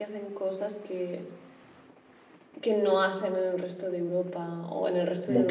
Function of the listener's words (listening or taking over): listening